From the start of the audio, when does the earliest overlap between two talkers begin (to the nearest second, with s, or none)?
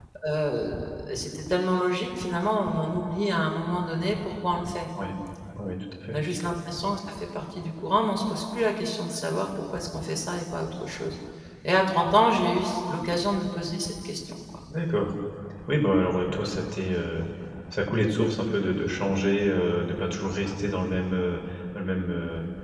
none